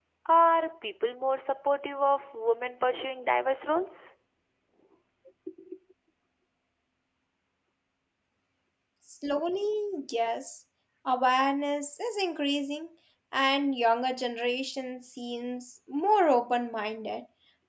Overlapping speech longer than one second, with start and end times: none

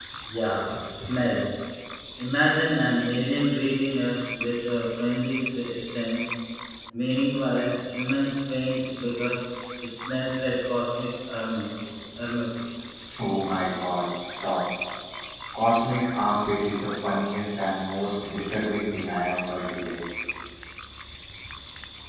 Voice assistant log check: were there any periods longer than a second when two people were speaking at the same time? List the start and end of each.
none

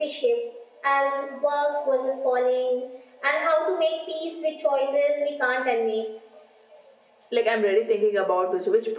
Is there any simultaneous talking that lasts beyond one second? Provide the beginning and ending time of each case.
none

